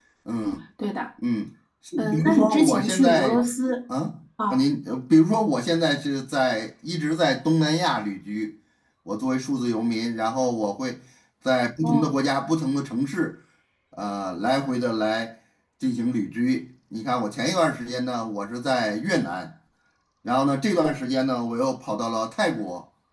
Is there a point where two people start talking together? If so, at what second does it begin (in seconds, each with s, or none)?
2.0 s